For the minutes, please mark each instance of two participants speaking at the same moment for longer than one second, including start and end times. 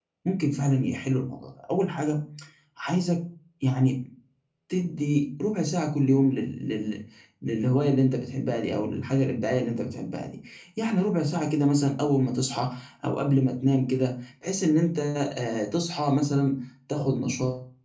none

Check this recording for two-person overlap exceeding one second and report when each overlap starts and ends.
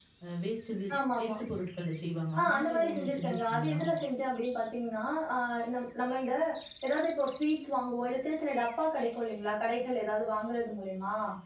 2.4-3.8

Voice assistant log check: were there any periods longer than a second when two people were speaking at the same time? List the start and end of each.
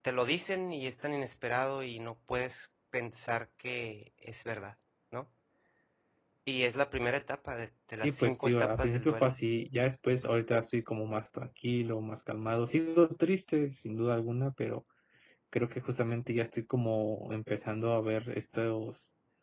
8.0-9.3

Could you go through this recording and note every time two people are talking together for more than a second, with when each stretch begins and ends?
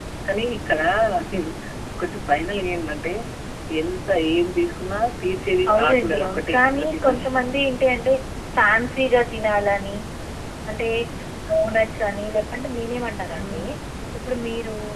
5.7-7.4

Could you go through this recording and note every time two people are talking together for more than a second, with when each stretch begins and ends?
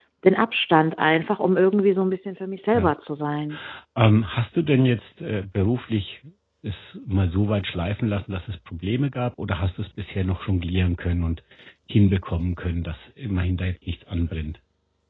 none

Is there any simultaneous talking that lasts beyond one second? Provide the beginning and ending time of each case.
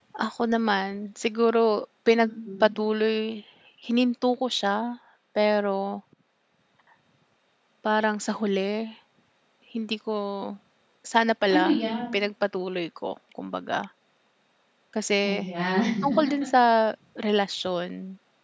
none

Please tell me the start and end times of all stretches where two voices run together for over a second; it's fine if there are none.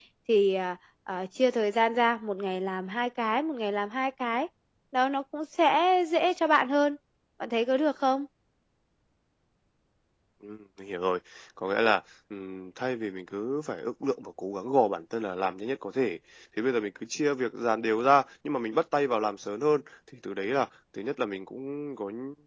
none

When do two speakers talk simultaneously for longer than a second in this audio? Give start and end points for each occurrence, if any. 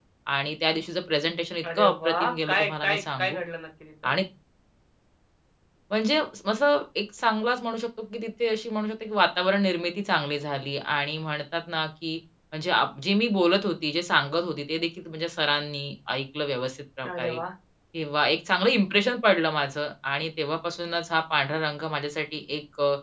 1.6-3.4

